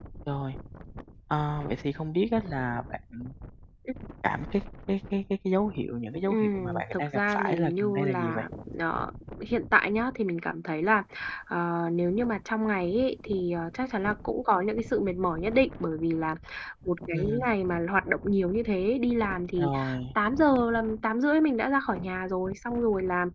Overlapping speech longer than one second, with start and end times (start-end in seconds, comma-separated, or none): 6.3-8.4